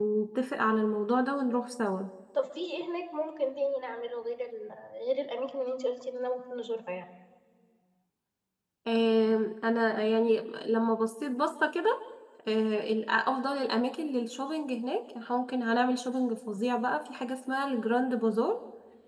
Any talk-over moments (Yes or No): No